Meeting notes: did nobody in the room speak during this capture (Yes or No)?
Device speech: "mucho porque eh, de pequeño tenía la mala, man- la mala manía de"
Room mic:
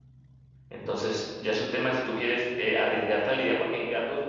No